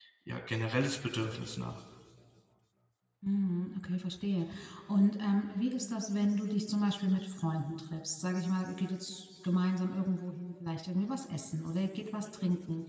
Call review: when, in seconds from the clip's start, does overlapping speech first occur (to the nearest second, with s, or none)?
none